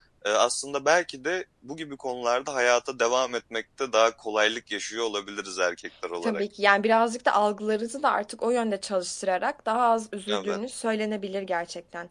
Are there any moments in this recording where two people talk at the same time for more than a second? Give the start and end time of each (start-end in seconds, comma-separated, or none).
none